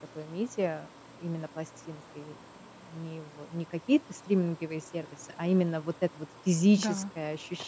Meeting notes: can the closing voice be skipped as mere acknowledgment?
Yes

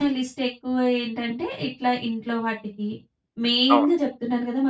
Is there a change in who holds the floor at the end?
No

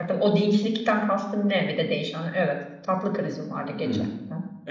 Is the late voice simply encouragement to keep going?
No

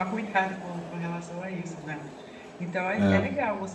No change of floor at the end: Yes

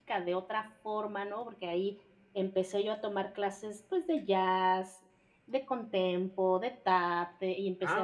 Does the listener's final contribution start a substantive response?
Yes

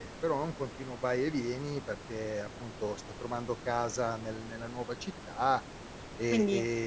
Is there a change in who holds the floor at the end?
No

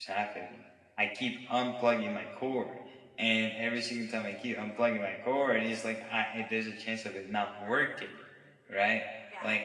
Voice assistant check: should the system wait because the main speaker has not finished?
Yes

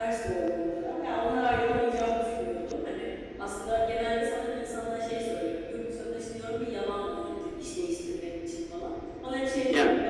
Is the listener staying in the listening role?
Yes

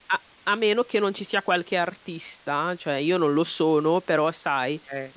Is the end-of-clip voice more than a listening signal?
No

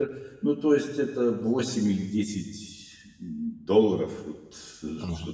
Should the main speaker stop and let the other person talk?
Yes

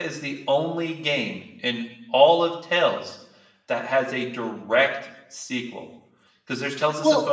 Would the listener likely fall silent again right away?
Yes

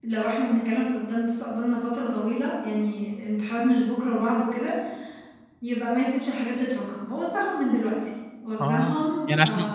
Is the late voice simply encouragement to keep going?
No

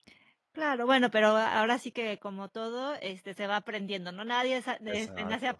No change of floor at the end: Yes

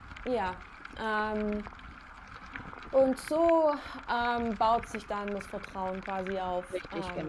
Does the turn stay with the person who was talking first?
No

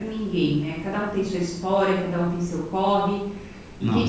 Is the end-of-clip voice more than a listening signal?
No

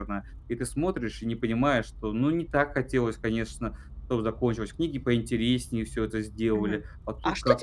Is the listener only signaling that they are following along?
No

